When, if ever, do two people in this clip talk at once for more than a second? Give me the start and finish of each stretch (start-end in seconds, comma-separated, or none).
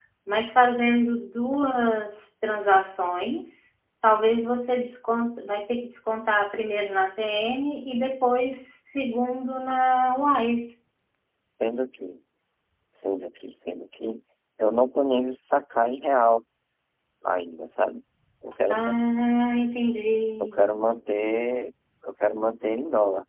none